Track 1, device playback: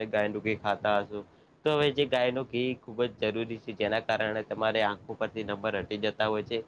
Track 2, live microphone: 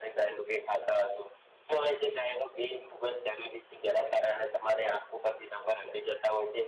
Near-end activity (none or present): none